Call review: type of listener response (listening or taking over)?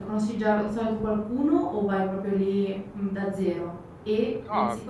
listening